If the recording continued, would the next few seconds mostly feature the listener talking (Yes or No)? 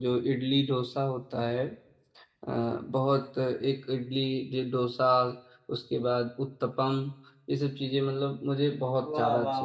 Yes